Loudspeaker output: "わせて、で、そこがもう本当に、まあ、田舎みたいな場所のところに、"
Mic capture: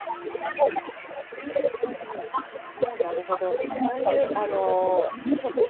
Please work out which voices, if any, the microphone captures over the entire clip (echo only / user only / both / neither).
both